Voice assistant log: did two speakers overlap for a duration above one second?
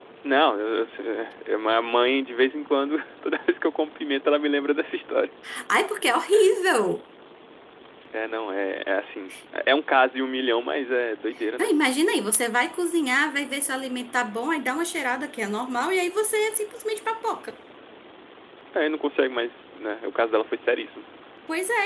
No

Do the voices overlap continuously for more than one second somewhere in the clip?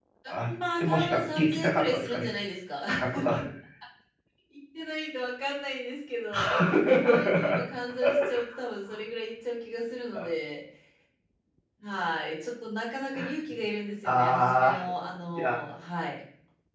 Yes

